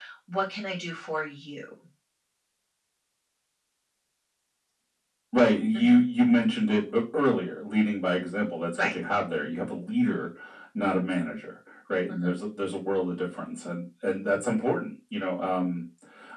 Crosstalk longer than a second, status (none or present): none